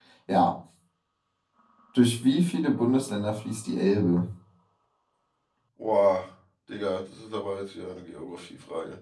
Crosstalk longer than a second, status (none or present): none